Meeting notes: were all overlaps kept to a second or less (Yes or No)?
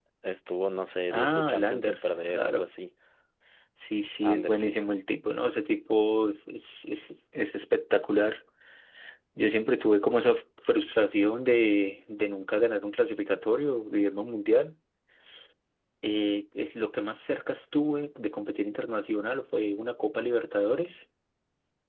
No